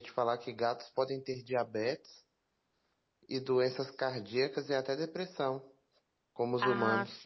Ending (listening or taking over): taking over